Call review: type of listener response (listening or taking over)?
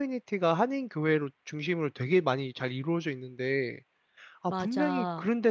listening